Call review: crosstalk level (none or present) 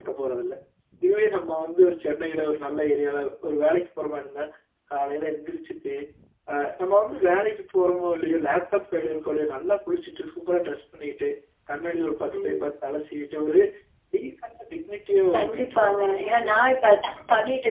present